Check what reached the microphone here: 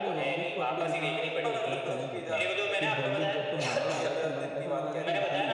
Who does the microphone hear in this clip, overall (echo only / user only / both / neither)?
both